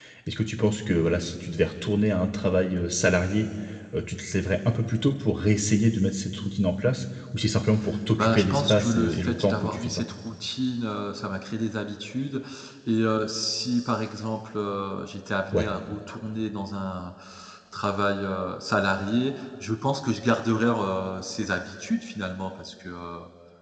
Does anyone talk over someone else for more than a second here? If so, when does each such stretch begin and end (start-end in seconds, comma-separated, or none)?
8.2-10.0